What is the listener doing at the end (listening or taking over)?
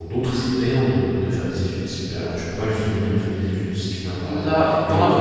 taking over